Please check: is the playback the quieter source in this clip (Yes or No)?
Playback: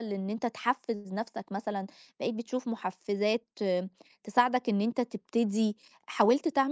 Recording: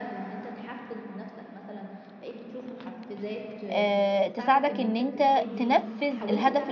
Yes